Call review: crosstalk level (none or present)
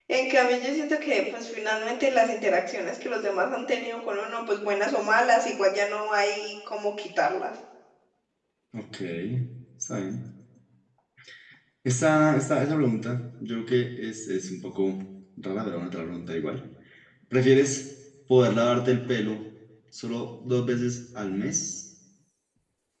none